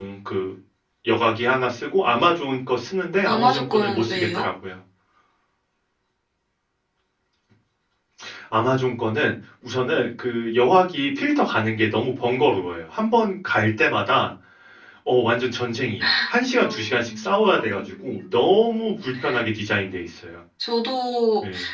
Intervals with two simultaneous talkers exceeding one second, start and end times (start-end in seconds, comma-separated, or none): 3.2-4.5, 16.5-18.3